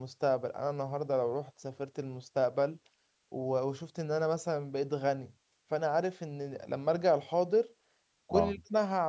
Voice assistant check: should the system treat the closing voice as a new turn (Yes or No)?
No